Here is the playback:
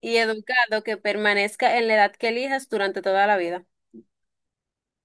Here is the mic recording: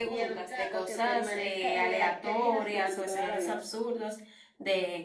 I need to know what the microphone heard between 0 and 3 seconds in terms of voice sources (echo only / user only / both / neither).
both